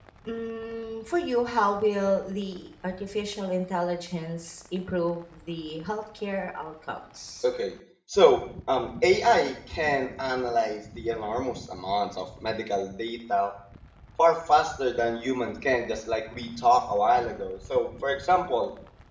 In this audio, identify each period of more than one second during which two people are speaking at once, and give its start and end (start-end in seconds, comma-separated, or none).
none